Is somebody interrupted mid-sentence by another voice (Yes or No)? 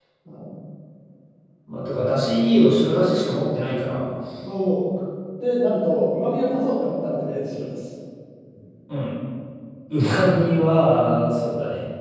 No